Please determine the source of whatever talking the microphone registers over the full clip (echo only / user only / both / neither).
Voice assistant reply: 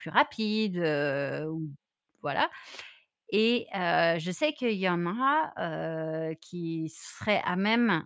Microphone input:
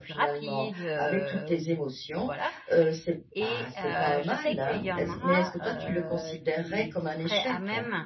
both